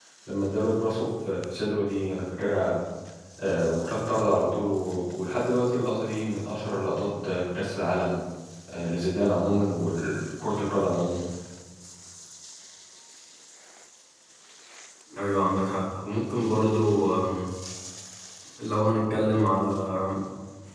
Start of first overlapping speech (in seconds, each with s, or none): none